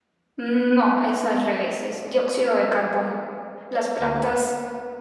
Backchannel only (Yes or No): Yes